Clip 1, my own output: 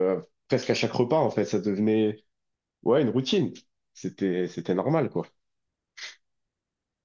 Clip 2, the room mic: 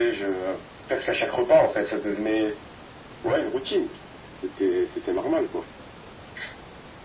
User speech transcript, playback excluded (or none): none